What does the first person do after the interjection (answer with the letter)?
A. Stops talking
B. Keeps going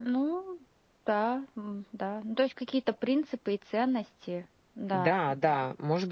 A